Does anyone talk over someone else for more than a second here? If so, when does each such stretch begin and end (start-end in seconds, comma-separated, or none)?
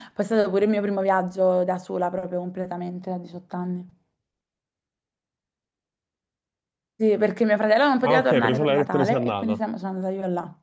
8.0-9.6